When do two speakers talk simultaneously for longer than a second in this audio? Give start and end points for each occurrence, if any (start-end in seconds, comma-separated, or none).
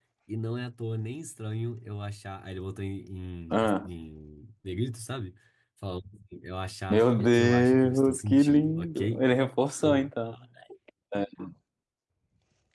6.9-9.2